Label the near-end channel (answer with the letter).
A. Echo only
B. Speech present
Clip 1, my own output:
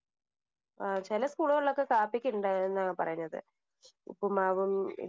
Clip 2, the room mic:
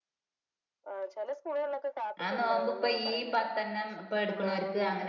B